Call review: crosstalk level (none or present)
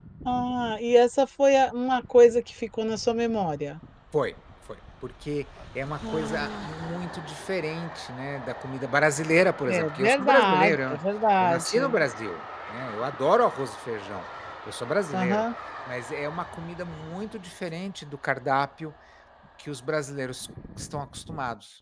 present